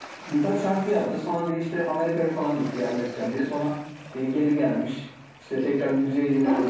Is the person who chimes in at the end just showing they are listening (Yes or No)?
Yes